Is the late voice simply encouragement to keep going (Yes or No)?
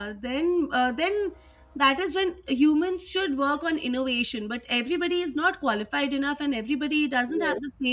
Yes